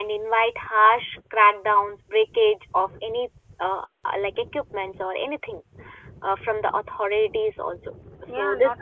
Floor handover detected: Yes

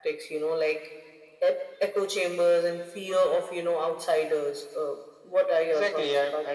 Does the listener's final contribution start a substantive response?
Yes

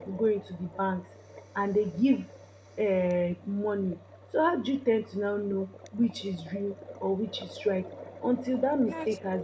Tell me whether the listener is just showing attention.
Yes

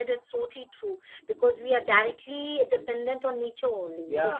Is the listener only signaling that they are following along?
Yes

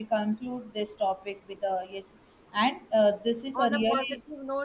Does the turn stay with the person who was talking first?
No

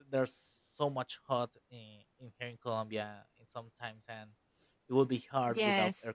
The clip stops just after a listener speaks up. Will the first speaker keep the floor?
No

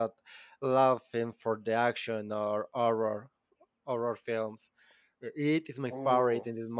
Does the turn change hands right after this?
No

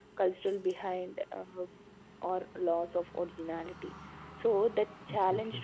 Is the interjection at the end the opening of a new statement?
No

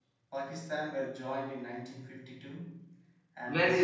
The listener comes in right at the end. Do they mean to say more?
Yes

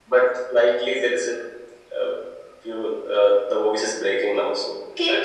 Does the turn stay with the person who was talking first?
No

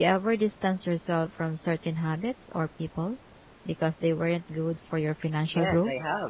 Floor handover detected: Yes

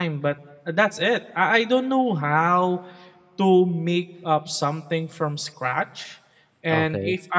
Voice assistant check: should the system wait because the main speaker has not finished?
Yes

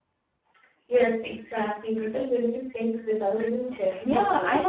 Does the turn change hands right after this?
Yes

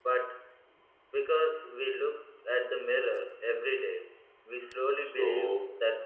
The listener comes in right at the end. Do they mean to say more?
Yes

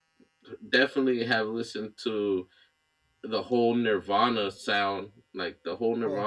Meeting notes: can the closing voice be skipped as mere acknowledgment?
Yes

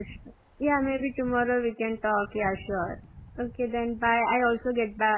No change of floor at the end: Yes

